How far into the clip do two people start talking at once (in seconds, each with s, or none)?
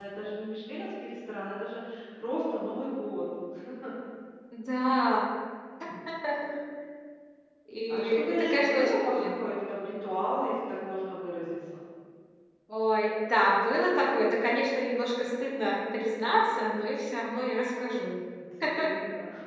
7.9 s